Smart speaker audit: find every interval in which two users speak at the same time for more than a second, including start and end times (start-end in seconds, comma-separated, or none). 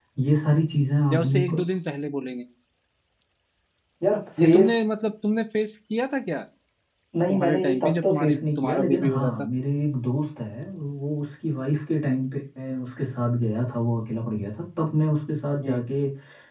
7.3-9.3